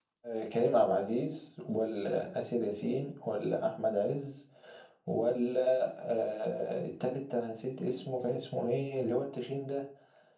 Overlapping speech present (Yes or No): No